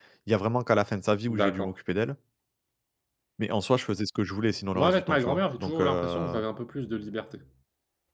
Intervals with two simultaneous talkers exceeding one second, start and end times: 4.7-6.4

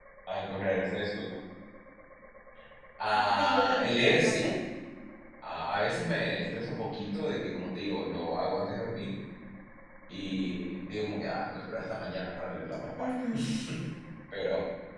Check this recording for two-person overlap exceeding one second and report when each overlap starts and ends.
3.1-4.4

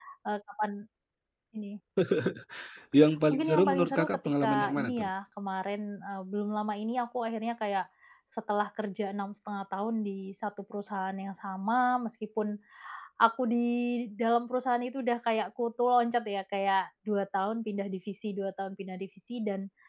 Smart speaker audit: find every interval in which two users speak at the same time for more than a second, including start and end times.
3.3-5.1

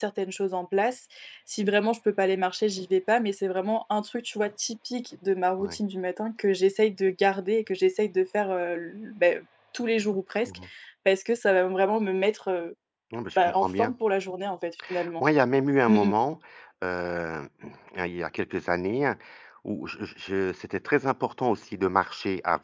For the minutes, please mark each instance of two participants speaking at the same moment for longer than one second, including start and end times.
none

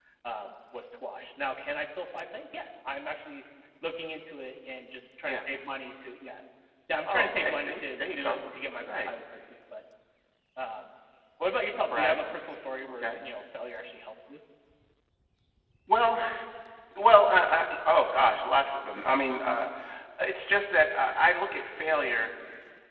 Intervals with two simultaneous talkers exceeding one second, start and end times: 7.1-8.4

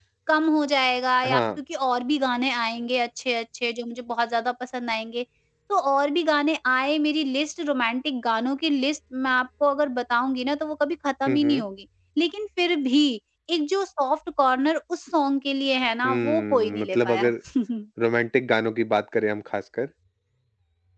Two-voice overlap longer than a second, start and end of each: 16.0-17.3

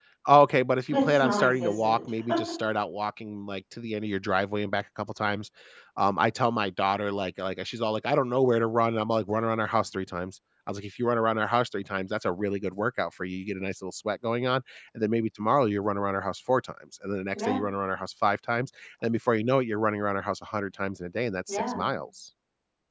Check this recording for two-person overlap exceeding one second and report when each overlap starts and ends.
0.9-2.1

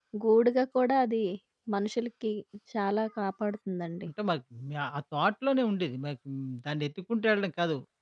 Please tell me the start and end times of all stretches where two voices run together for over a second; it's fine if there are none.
none

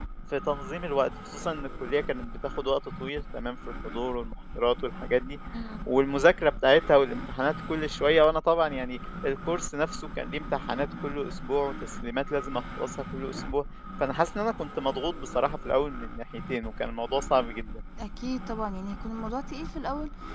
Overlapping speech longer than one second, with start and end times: none

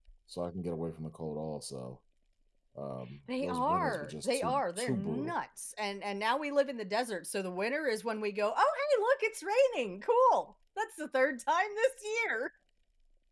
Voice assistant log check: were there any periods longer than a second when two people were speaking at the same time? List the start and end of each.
3.4-5.3

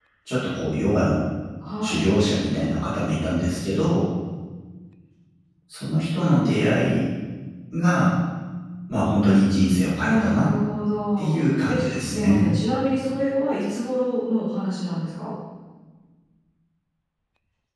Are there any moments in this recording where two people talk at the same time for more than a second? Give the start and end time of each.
11.2-12.5

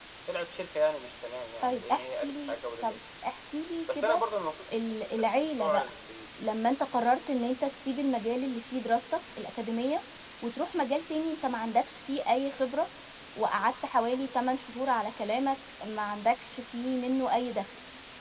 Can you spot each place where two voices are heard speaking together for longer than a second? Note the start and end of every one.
1.6-3.0

